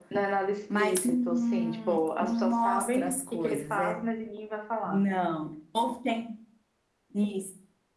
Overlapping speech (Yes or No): Yes